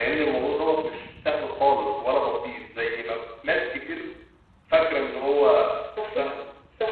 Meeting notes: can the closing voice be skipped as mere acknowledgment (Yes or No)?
No